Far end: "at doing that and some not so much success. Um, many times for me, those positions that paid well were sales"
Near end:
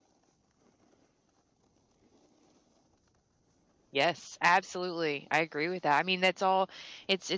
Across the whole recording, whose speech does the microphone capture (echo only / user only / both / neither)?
user only